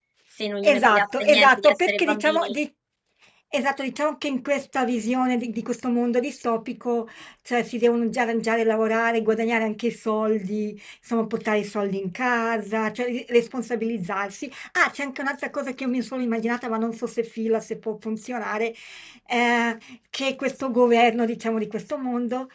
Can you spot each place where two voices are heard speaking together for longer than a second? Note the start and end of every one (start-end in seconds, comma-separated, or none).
0.6-2.6